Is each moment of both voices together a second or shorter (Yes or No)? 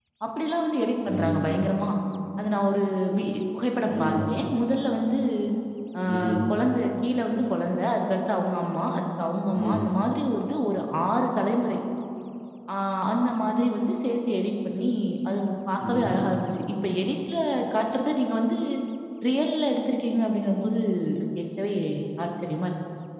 Yes